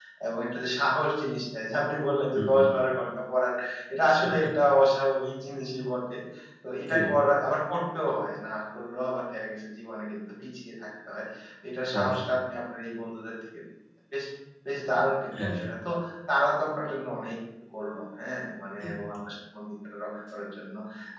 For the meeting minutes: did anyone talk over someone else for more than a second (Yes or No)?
No